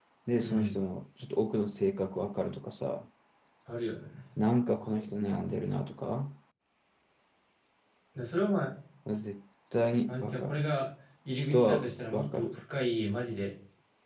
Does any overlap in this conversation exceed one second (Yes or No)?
Yes